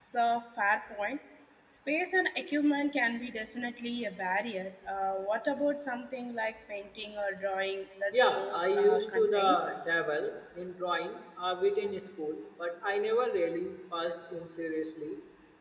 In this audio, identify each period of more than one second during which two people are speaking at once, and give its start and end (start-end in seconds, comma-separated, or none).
8.3-9.6